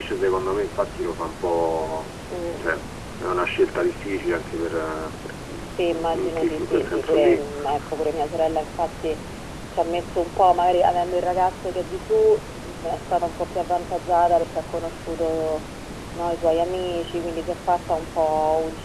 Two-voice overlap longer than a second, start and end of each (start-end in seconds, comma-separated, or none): 6.1-7.4